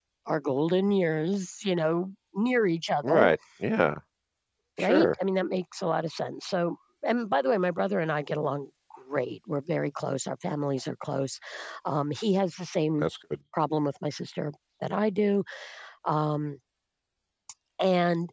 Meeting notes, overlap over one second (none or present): none